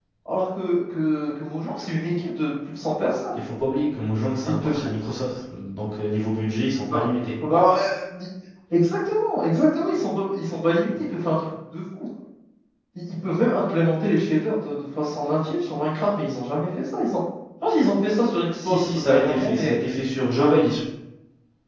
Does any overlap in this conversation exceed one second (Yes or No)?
Yes